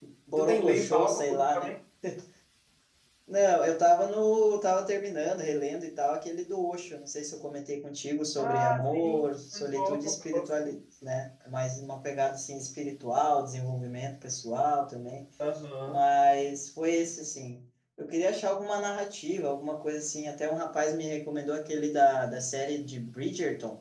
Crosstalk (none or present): present